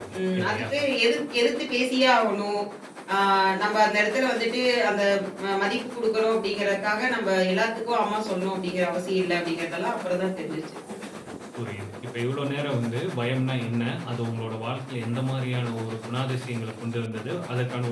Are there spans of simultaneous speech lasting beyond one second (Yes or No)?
No